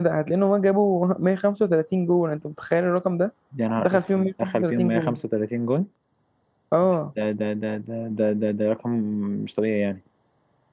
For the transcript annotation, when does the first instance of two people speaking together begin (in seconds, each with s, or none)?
3.8 s